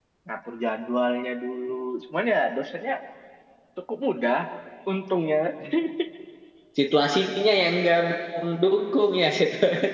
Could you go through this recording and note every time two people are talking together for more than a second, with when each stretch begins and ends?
none

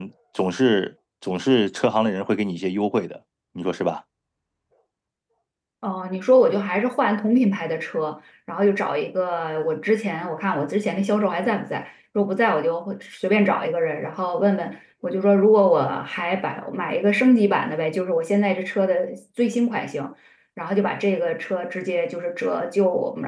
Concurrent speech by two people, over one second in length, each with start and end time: none

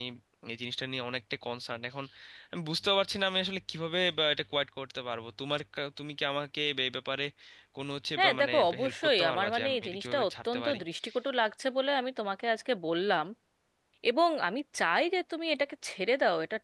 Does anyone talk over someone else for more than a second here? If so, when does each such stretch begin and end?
8.2-10.8

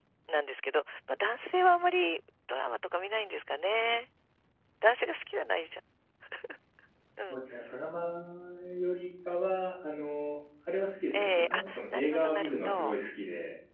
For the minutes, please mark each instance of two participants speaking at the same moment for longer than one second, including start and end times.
11.1-13.0

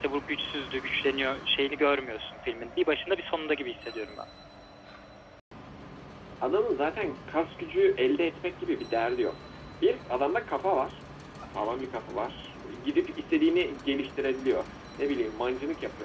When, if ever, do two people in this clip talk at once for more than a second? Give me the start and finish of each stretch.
none

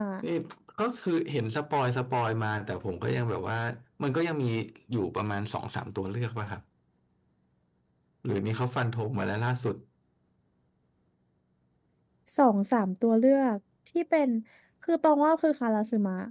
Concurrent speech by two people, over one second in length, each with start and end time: none

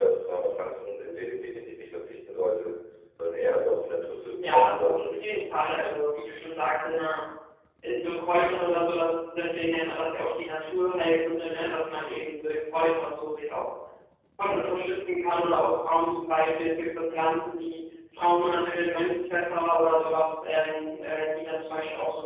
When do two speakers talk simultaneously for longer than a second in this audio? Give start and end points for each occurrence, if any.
4.4-6.0

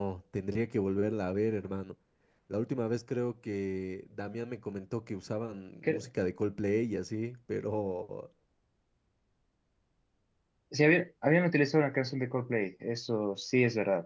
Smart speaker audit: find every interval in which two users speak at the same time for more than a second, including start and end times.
none

